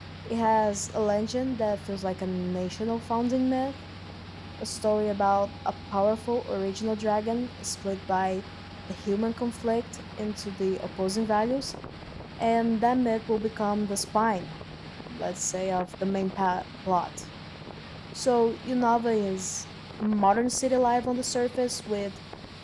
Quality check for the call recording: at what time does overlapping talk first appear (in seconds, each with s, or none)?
none